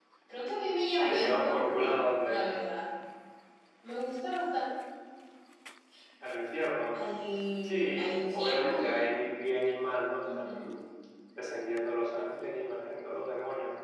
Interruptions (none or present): present